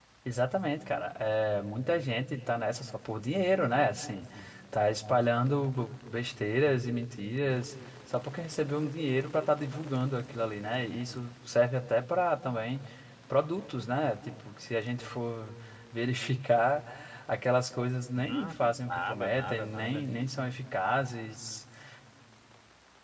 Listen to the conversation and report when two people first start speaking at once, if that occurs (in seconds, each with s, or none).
18.1 s